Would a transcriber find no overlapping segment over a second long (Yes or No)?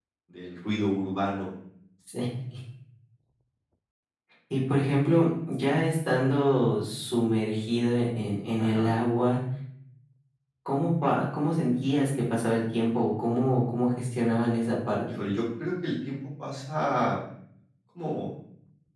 Yes